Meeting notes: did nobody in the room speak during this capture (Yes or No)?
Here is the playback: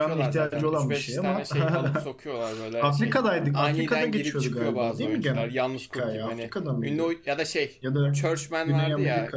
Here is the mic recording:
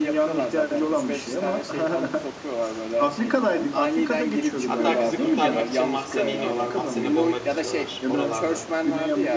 No